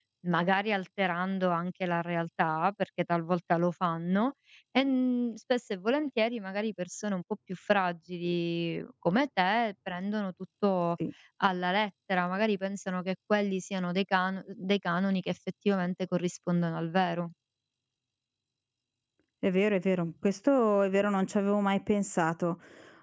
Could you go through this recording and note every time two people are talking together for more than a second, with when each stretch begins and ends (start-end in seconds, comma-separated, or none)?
none